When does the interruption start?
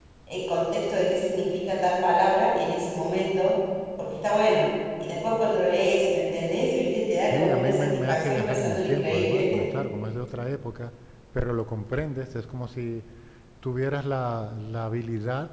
7 s

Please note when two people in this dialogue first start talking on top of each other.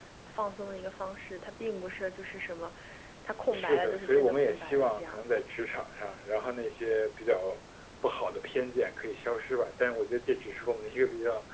4 s

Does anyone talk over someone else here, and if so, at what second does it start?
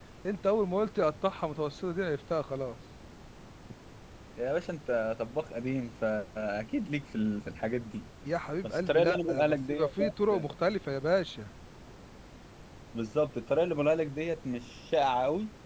9 s

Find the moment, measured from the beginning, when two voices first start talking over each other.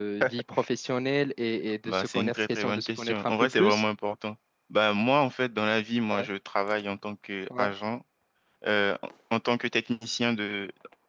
2 s

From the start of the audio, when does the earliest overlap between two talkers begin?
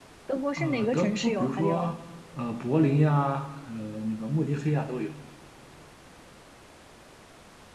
1 s

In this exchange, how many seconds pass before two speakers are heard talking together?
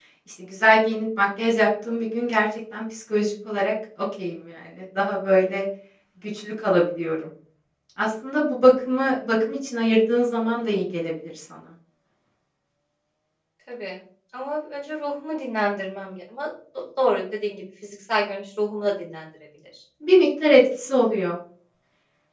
none

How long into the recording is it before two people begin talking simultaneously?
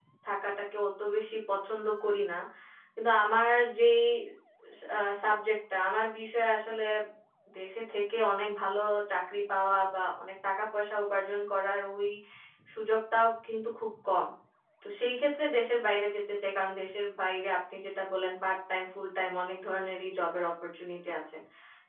none

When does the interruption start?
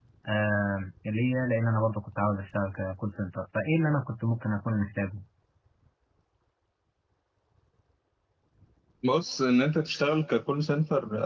none

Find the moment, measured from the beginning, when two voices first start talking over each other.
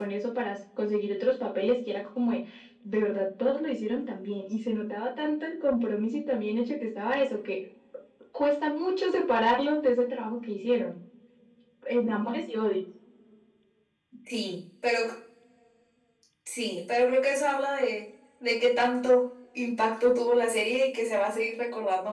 none

